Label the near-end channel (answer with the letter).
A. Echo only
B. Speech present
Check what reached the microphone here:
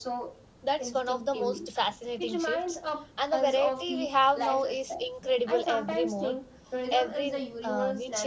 B